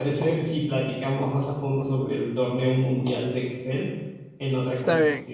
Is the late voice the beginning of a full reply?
Yes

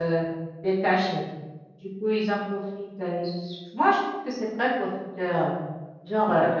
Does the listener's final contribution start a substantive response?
No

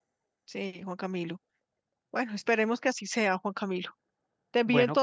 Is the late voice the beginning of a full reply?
No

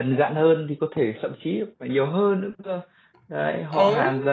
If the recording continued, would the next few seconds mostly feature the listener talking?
No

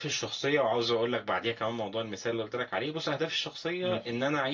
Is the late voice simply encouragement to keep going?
Yes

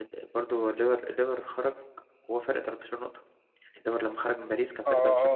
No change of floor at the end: No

